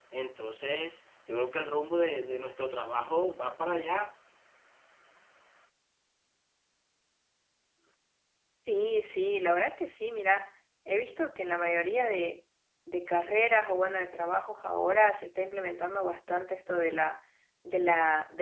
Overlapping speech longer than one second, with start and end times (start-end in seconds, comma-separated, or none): none